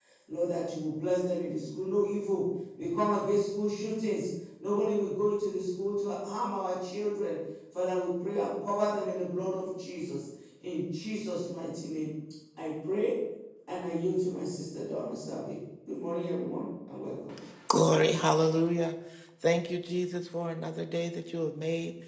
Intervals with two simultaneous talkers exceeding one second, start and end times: none

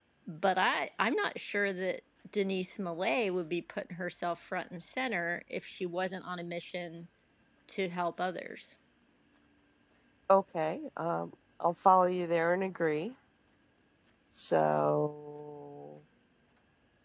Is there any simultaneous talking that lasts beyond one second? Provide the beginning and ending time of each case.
none

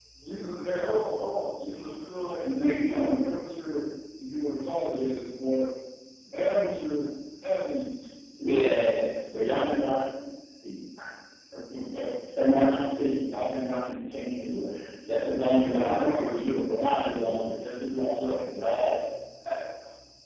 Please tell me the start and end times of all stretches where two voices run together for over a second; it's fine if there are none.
15.7-17.4

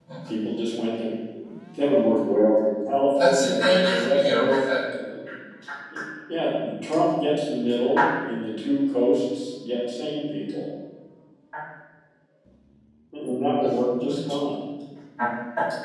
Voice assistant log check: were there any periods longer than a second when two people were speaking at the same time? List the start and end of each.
3.1-4.7

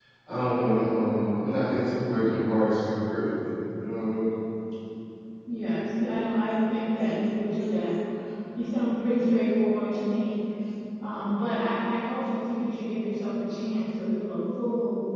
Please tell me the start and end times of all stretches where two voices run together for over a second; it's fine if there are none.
none

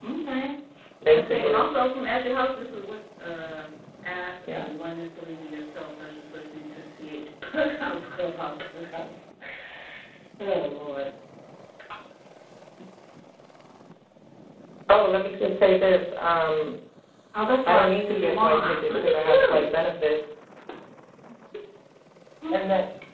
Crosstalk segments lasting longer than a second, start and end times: 17.7-19.7

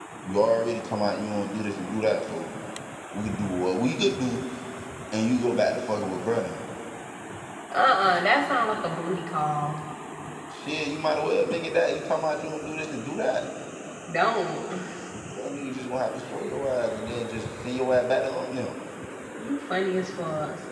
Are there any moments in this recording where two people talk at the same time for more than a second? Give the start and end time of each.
none

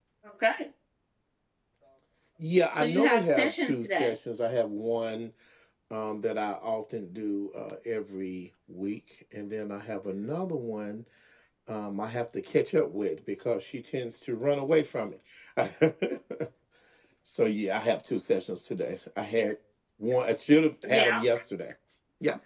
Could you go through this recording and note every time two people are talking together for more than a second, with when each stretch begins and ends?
2.8-4.1

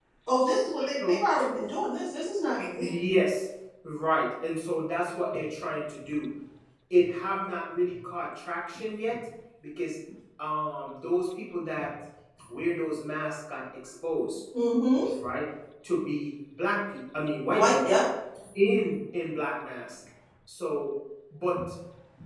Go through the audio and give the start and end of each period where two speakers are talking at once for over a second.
none

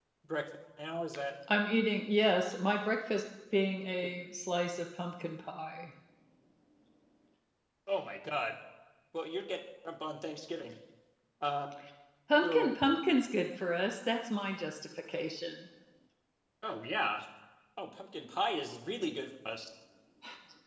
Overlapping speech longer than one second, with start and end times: none

